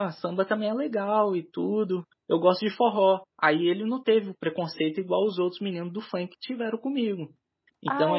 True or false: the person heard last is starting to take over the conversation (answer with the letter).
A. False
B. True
B